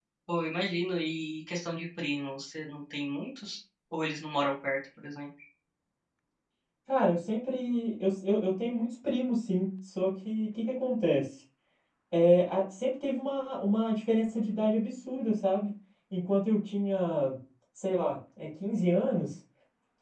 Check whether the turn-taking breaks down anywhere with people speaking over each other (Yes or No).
No